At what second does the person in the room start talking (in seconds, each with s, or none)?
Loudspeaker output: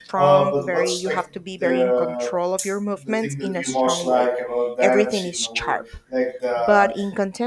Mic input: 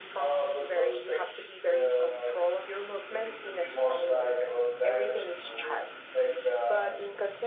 none